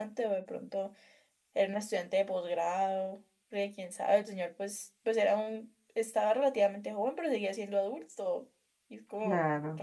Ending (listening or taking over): taking over